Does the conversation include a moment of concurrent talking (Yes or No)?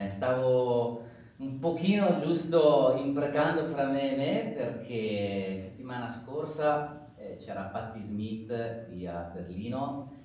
No